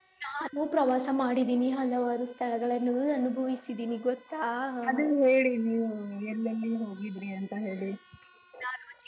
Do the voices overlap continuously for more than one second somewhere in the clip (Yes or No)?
No